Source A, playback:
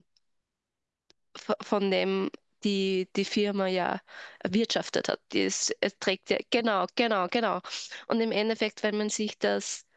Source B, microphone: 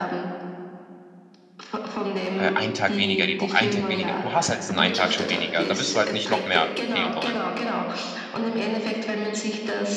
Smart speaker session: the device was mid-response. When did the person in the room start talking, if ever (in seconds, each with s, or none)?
2.3 s